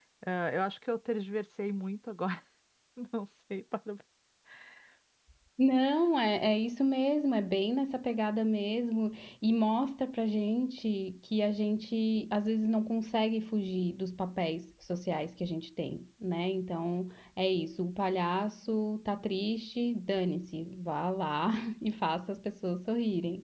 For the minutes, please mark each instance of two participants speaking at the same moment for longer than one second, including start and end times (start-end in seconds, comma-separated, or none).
none